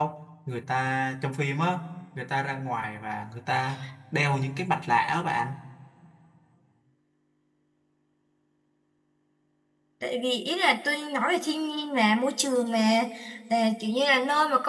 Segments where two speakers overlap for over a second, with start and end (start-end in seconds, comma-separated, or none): none